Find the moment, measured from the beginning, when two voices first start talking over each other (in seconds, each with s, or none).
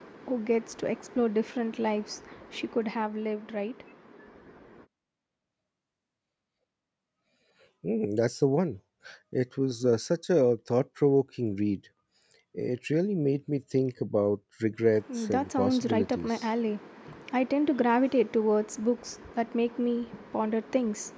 15.1 s